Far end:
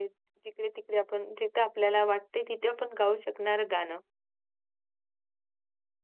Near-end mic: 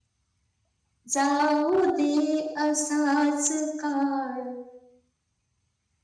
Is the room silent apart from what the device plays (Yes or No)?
No